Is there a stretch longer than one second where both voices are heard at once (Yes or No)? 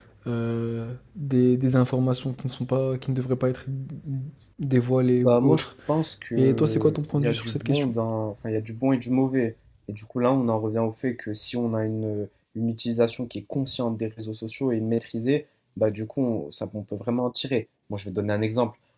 Yes